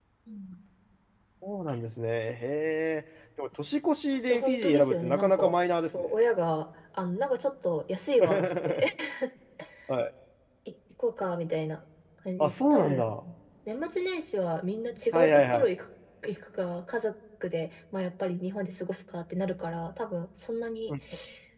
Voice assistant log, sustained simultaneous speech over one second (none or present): present